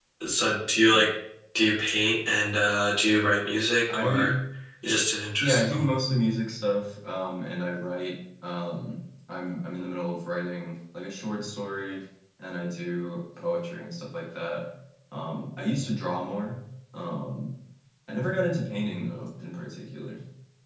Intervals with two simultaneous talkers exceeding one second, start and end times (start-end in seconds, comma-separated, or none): none